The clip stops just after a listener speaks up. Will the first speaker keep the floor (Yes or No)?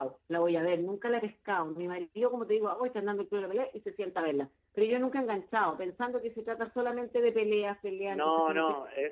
No